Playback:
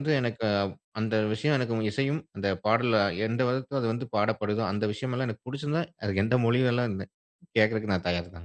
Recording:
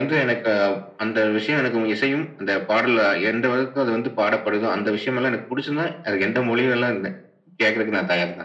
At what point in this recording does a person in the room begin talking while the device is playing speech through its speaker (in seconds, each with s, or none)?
none